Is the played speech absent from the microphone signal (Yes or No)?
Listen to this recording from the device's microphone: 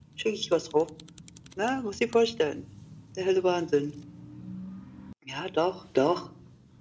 No